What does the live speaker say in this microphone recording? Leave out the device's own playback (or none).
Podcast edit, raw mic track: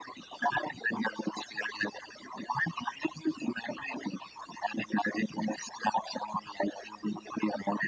none